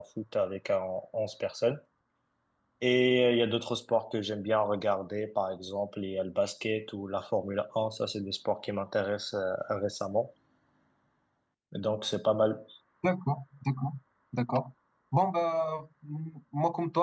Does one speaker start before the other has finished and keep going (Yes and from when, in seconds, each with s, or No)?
No